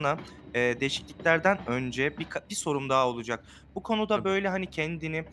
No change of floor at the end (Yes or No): Yes